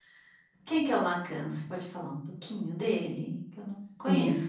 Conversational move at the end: taking over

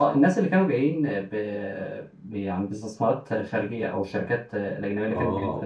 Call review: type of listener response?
taking over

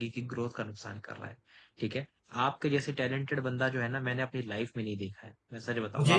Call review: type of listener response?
listening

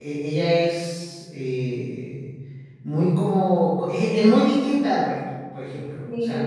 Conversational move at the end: listening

